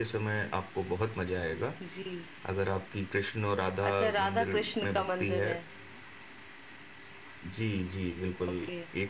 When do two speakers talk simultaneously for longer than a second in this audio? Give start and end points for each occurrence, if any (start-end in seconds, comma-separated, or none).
3.9-5.5